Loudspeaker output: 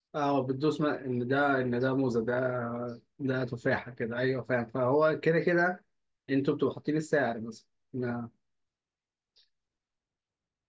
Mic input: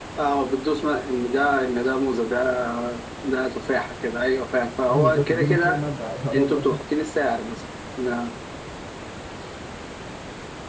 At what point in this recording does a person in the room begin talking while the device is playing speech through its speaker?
4.9 s

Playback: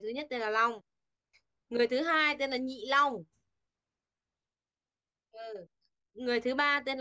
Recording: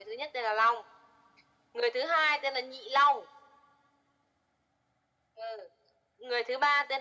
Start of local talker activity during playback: none

